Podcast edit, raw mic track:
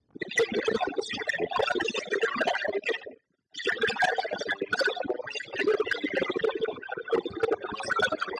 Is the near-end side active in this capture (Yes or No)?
No